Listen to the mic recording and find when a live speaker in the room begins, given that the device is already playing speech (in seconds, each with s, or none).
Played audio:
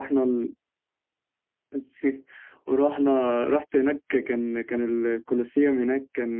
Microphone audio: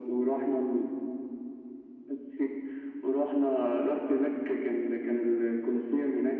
none